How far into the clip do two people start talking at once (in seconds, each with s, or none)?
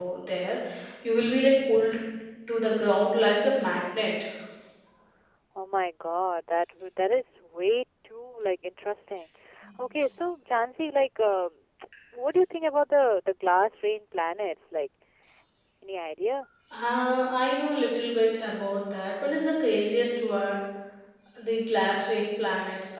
none